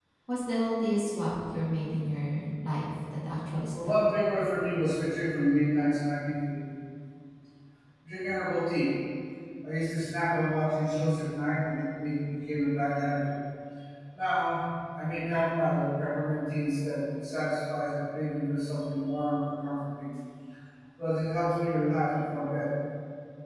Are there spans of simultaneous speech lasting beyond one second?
No

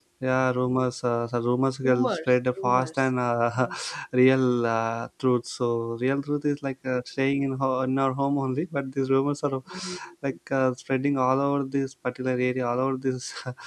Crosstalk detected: Yes, from 1.8 s

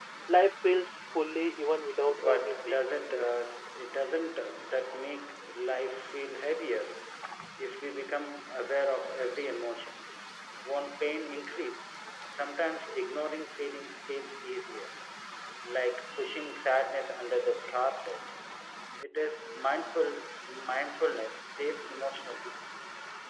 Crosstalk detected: Yes, from 2.1 s

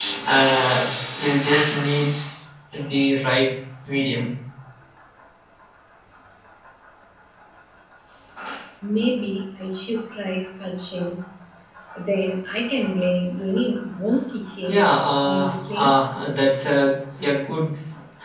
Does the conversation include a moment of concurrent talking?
Yes, from 14.7 s

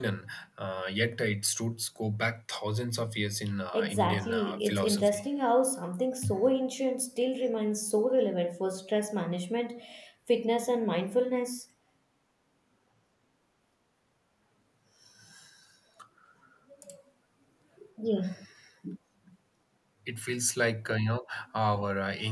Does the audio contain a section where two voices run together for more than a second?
Yes, from 3.7 s

